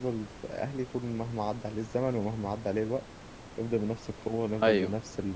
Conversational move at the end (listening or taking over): listening